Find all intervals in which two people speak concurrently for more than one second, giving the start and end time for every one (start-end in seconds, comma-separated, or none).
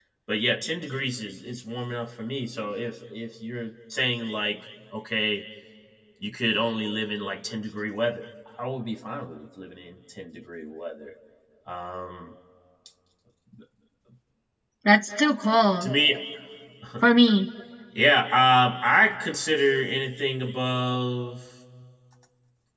none